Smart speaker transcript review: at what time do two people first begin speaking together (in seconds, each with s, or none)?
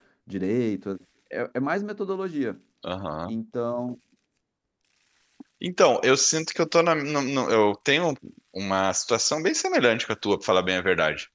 none